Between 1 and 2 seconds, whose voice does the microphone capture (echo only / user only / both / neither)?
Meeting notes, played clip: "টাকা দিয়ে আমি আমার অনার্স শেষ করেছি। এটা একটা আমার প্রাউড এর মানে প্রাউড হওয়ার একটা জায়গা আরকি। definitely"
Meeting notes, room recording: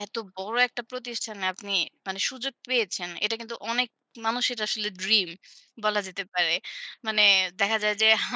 user only